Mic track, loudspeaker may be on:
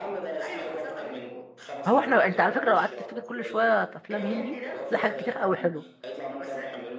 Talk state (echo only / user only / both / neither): both